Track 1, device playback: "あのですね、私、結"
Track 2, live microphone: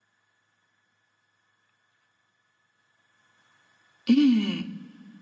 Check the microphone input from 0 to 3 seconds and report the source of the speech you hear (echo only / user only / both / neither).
neither